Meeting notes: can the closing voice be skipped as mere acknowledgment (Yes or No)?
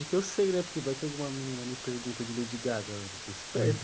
No